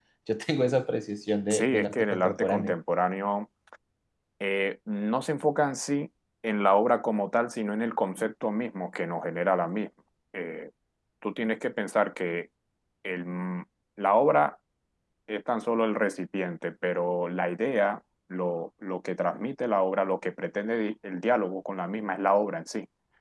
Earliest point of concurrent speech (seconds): 2 s

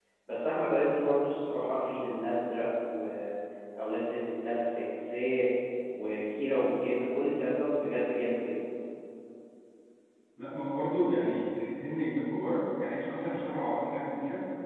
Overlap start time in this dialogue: none

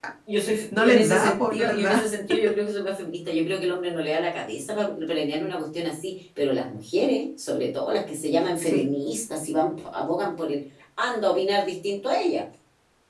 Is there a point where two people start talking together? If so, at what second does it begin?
1 s

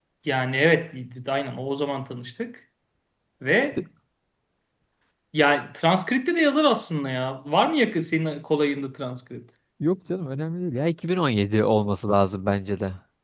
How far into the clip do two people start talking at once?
none

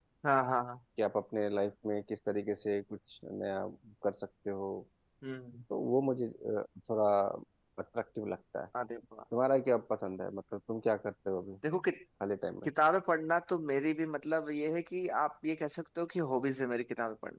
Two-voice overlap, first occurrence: none

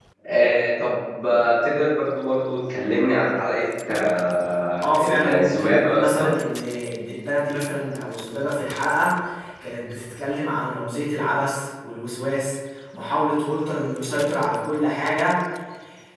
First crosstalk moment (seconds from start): 5 s

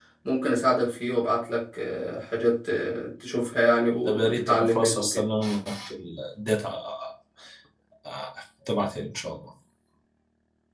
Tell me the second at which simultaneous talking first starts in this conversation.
4 s

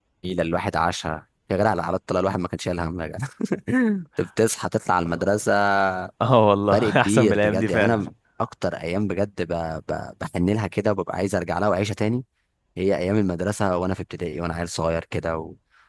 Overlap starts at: 7 s

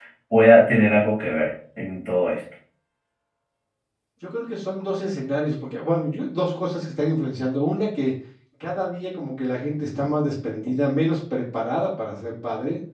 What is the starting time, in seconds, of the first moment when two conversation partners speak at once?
none

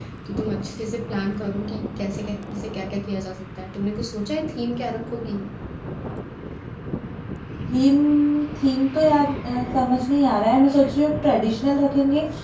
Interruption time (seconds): none

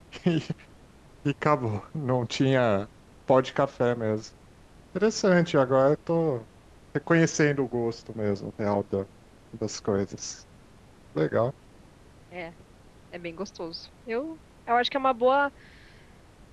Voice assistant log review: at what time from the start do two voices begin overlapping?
none

